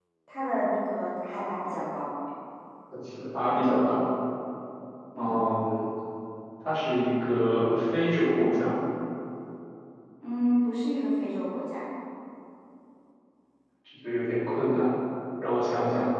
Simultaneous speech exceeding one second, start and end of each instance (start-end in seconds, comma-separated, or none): none